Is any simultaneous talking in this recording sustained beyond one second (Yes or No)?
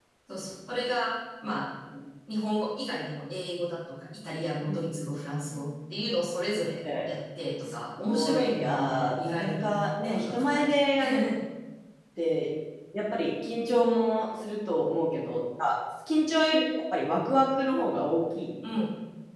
Yes